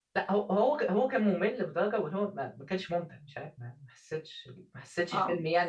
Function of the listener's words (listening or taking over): listening